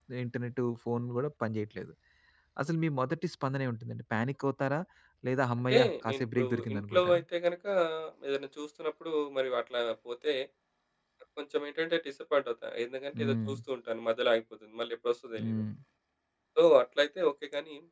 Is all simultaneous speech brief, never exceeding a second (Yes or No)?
No